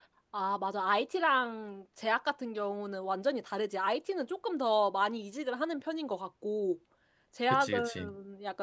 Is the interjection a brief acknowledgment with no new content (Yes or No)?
Yes